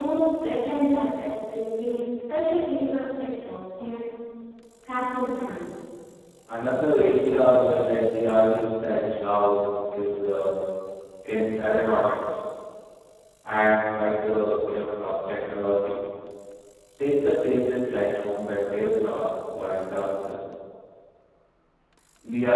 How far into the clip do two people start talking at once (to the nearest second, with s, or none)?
none